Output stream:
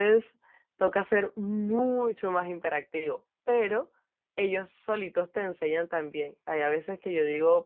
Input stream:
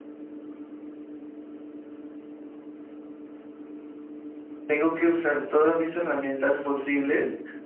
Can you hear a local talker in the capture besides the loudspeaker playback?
Yes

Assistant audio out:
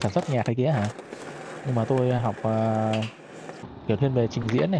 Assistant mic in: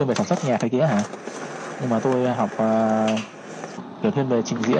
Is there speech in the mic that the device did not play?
No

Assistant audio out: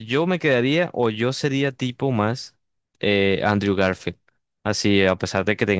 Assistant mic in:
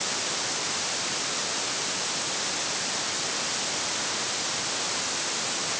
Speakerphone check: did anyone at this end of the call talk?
No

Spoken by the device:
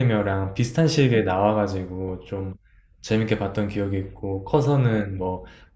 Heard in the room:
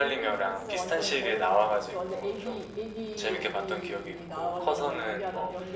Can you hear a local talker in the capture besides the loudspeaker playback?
Yes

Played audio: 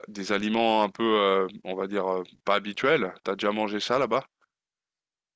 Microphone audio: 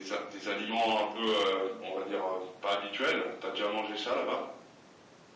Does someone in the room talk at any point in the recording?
No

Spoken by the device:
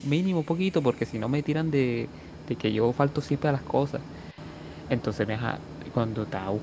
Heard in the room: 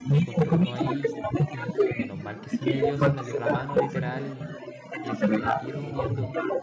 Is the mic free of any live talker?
No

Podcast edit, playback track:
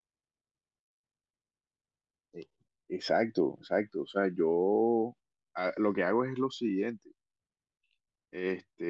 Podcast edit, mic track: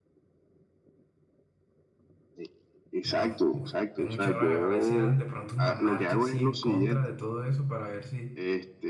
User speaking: Yes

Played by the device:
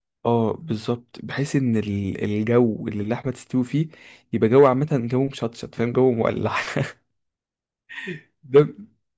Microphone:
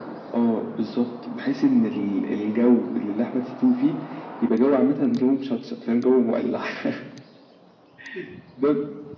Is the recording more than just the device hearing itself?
No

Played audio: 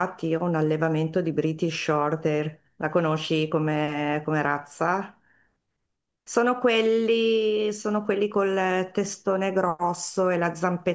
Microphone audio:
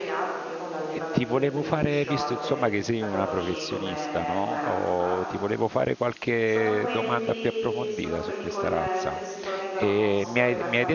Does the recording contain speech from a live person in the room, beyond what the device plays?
Yes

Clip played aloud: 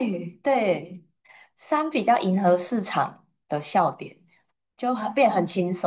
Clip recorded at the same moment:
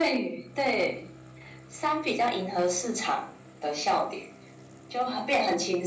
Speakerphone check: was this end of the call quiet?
Yes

